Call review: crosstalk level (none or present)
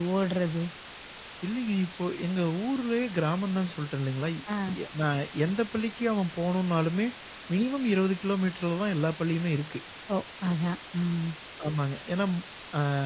none